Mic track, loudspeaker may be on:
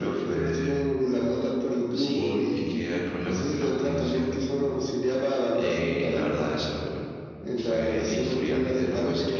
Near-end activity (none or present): present